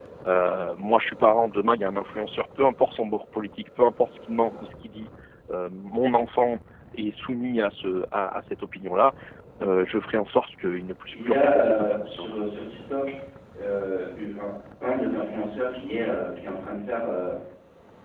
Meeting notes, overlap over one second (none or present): present